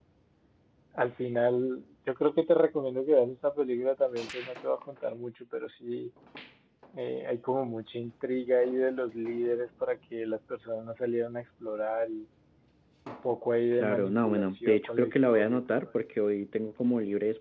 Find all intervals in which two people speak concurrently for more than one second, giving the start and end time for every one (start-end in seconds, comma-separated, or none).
13.8-15.9